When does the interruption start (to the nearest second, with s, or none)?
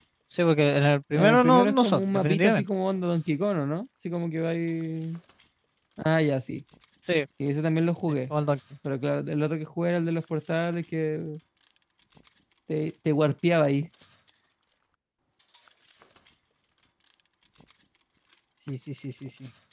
1 s